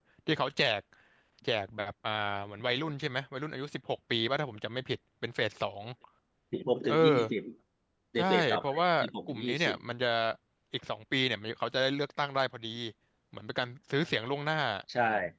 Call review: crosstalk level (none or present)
present